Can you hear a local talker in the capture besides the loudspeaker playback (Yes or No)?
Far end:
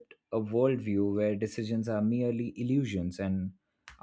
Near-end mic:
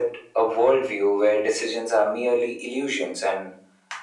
No